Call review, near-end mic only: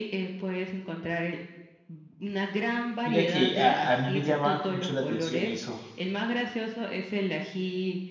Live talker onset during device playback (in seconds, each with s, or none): 3.0 s